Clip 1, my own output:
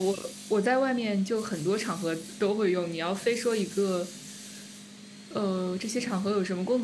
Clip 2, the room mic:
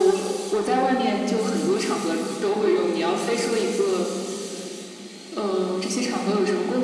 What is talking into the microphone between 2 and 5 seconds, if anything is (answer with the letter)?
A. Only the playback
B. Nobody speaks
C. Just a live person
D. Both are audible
A